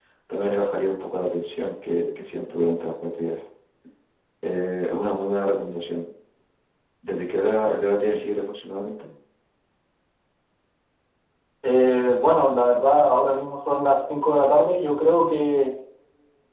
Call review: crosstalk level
none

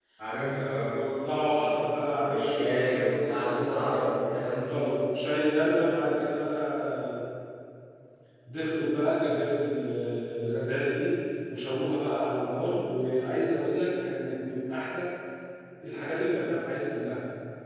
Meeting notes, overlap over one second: present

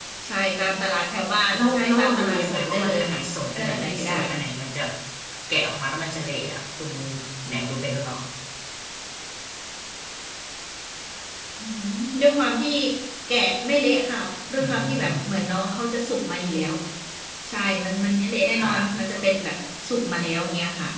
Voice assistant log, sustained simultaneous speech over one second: present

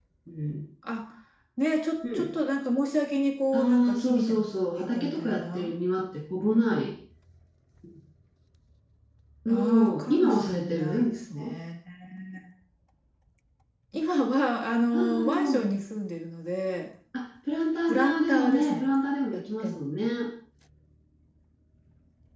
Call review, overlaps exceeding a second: present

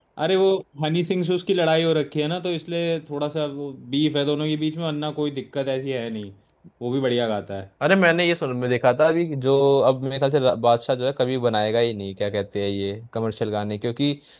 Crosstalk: none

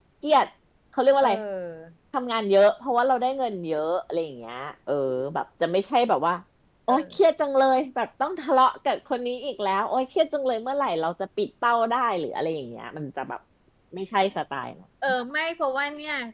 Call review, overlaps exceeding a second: none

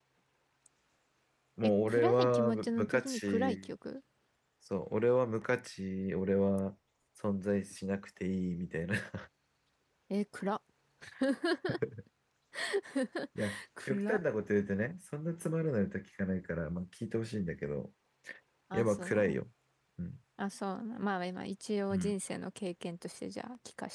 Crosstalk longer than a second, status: present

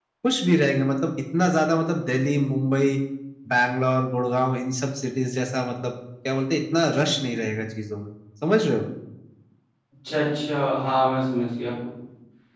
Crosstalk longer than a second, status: none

